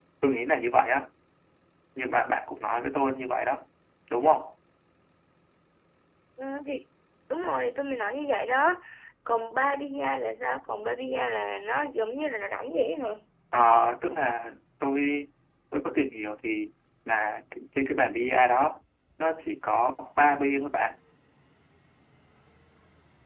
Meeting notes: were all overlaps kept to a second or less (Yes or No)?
Yes